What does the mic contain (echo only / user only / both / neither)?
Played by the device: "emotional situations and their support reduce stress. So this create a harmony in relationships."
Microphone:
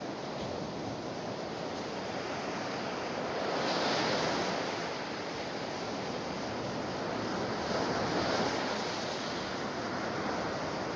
neither